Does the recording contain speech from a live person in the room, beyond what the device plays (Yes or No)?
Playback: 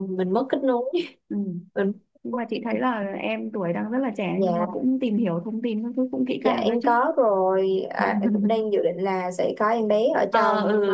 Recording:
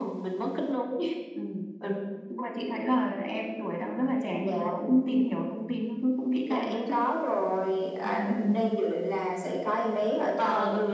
No